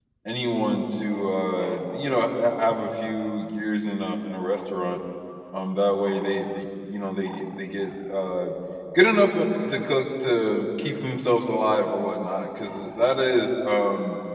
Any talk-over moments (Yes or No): No